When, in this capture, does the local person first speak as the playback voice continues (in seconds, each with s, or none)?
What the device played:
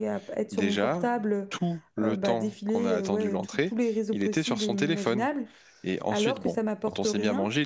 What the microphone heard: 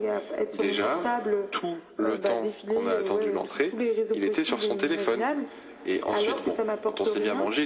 none